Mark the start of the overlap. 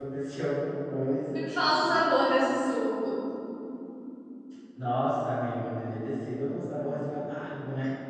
none

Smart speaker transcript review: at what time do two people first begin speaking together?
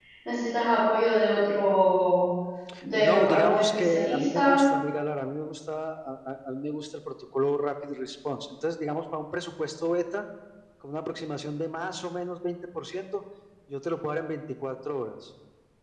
3.0 s

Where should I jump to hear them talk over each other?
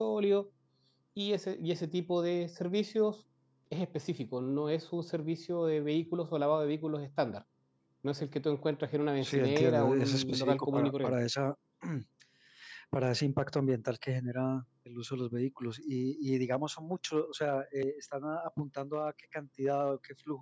9.2 s

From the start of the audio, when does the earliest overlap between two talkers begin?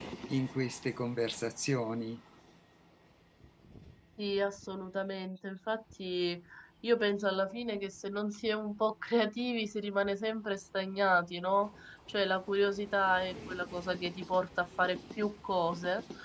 none

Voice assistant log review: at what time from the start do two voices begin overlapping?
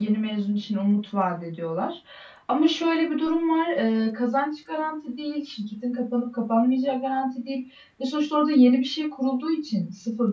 none

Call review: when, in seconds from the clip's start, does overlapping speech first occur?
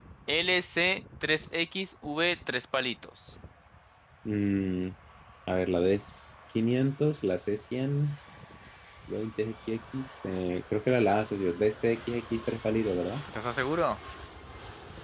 none

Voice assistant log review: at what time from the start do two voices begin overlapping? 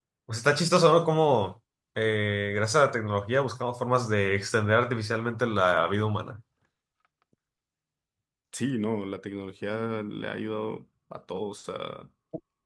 none

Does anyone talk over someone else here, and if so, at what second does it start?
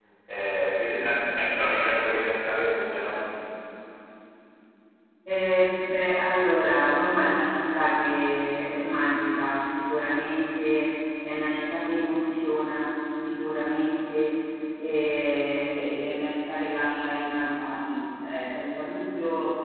none

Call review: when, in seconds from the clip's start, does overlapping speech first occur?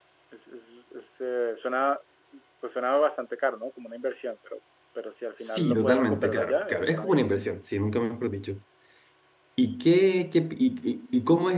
5.4 s

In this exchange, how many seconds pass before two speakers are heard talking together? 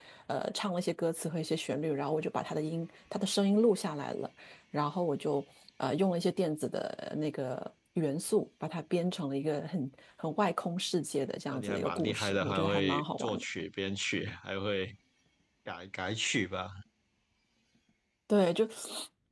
11.5 s

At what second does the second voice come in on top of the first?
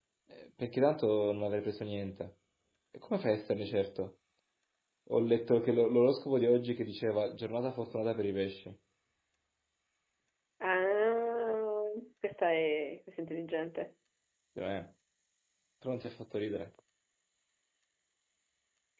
none

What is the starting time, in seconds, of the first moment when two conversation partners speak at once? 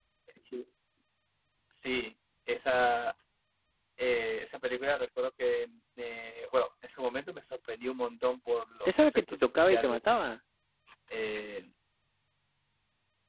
8.8 s

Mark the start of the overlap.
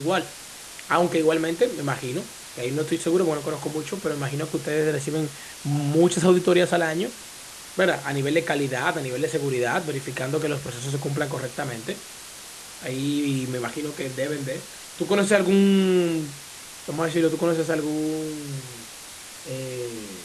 none

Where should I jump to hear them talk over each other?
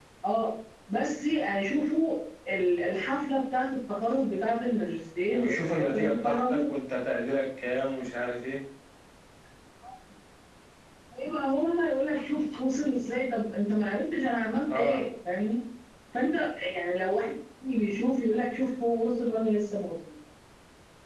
5.3 s

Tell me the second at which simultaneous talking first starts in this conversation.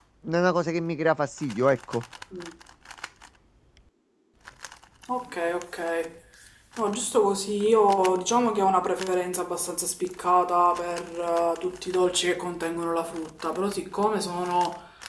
none

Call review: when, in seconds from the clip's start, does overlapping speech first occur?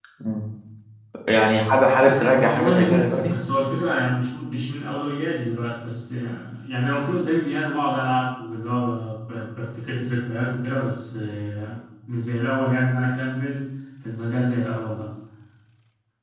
2.0 s

